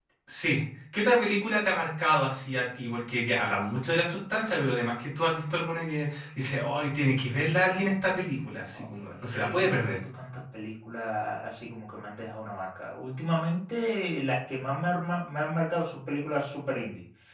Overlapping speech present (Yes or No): Yes